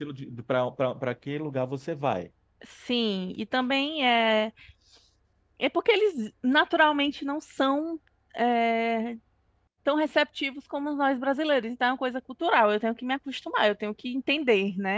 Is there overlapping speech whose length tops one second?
No

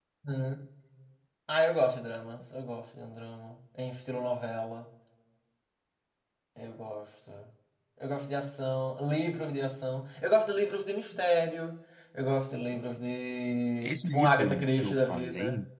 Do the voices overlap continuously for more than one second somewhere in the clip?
Yes, from 13.8 s

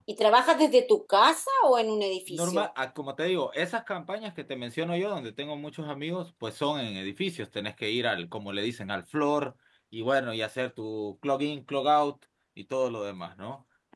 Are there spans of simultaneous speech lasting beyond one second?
No

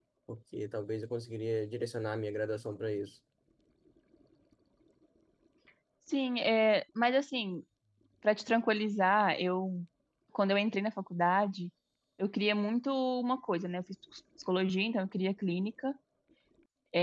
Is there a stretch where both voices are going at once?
No

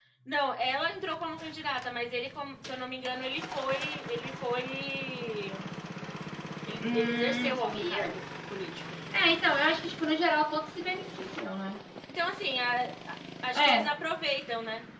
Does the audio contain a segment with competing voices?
Yes, from 6.9 s

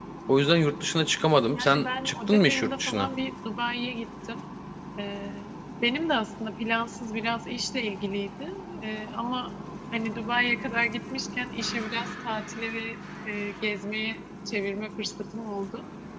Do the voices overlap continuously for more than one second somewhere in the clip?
Yes, from 1.5 s

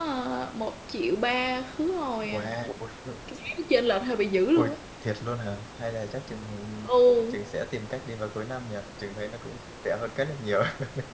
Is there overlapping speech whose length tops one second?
No

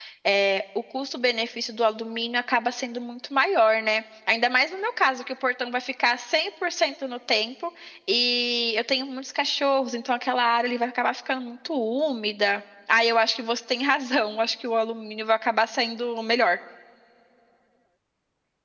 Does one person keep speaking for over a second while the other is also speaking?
No

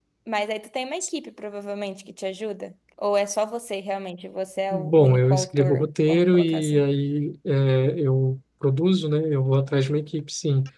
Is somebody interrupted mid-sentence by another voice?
Yes, from 4.7 s

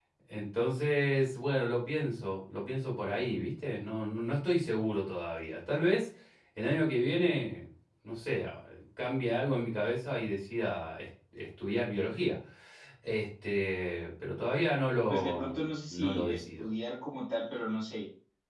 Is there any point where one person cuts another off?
Yes, from 15.1 s

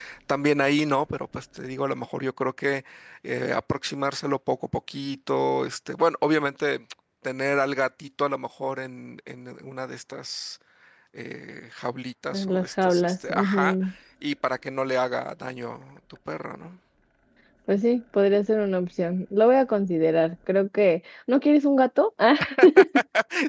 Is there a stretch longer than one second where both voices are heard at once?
Yes, from 12.3 s

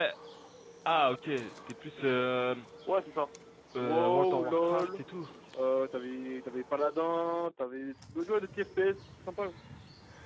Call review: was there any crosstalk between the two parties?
Yes, from 3.8 s

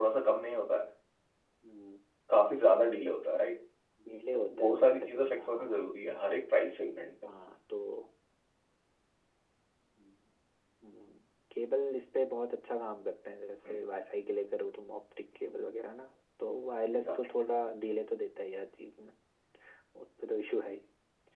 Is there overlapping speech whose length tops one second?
Yes, from 4.3 s

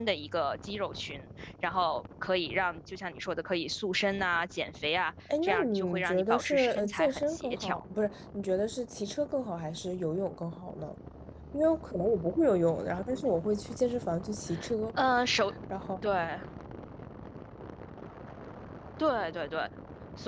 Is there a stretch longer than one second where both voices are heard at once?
Yes, from 5.3 s

